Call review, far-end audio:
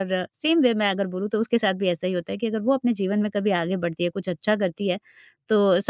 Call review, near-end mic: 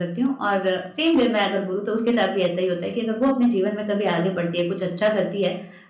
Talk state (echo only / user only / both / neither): echo only